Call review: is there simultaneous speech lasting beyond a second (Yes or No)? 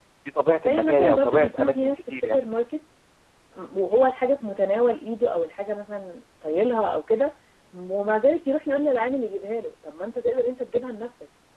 Yes